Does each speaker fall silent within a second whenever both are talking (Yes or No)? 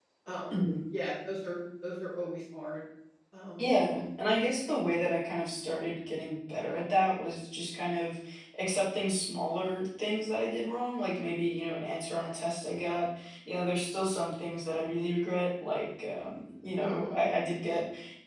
Yes